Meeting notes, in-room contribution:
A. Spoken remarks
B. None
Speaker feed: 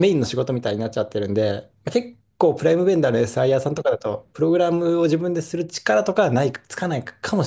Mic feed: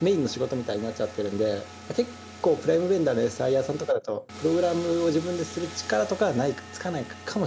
B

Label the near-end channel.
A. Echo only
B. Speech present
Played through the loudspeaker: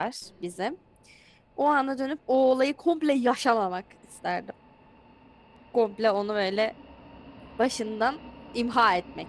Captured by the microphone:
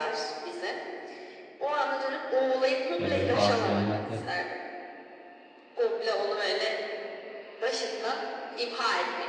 B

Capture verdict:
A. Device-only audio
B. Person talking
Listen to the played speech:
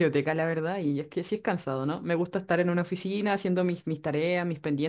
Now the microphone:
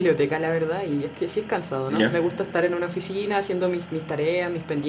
B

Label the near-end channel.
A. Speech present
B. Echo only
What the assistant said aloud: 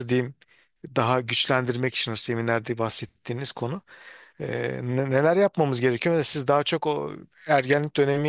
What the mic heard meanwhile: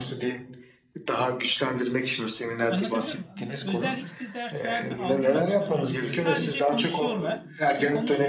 A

